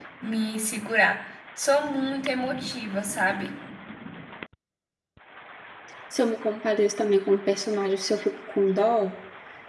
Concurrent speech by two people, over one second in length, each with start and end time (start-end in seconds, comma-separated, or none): none